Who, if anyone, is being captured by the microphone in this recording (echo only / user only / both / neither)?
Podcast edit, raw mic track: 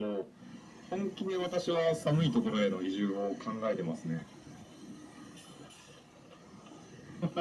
echo only